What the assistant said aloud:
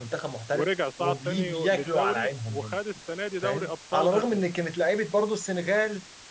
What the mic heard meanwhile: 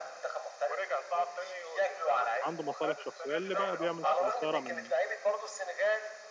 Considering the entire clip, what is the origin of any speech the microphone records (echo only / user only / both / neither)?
both